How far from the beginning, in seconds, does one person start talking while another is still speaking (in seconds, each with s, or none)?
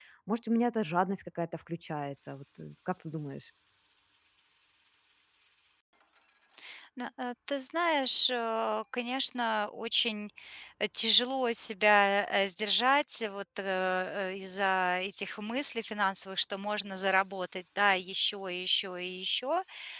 none